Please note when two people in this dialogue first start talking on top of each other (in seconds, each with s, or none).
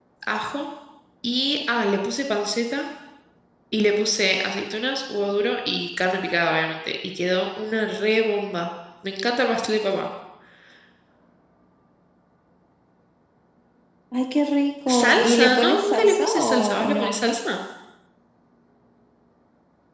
14.9 s